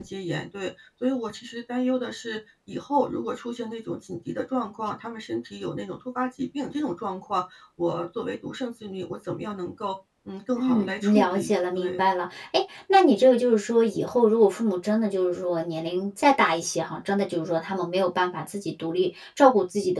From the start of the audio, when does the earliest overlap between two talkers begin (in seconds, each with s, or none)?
10.6 s